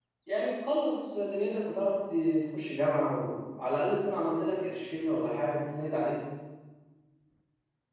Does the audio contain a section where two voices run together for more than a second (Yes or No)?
No